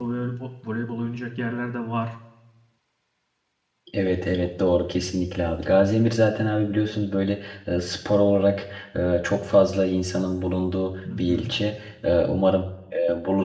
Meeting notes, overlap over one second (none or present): none